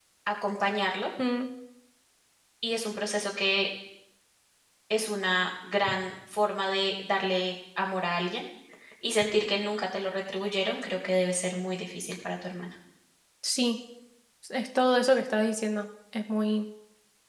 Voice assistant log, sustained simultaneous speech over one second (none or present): none